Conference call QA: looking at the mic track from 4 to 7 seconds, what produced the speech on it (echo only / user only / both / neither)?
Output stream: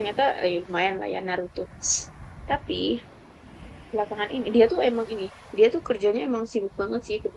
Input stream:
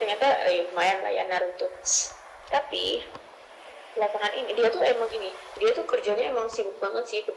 echo only